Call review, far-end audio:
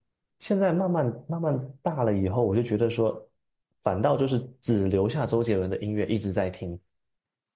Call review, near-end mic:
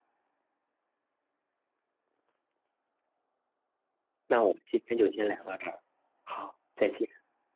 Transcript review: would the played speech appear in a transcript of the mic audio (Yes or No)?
No